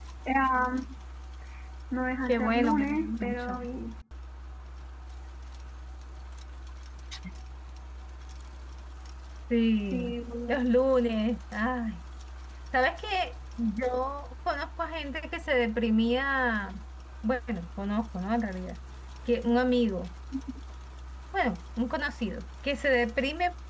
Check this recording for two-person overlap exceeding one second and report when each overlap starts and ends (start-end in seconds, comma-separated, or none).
2.3-3.6